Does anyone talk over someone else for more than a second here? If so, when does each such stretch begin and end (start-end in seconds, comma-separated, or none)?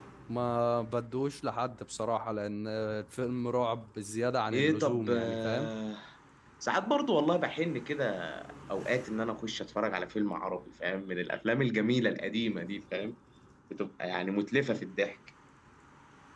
4.5-5.7